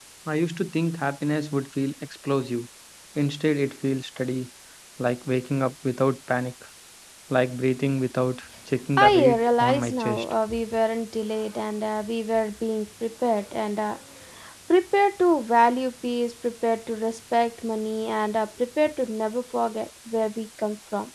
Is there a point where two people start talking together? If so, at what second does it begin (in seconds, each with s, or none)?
9.0 s